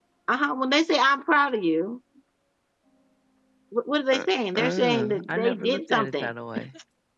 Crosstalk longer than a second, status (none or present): present